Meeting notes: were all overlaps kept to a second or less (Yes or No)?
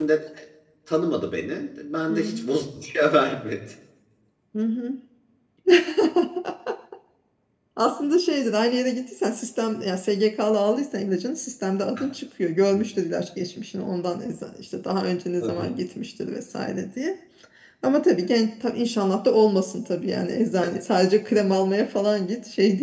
Yes